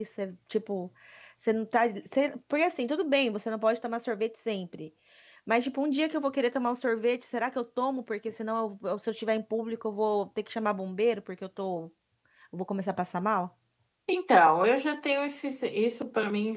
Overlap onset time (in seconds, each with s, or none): none